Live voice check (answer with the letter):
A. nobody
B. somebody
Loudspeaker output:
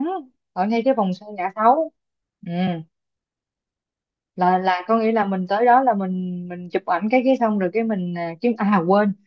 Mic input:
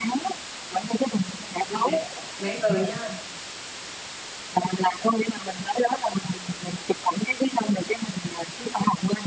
B